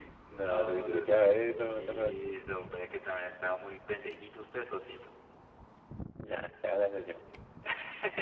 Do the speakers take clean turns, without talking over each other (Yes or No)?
No